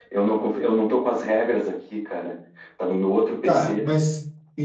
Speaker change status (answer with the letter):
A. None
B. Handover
B